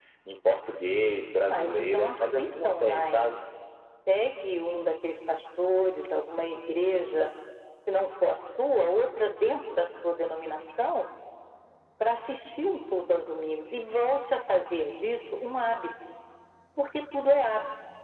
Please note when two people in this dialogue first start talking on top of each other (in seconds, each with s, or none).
1.5 s